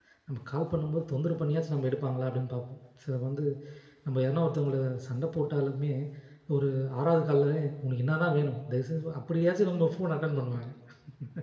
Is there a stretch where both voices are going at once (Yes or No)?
No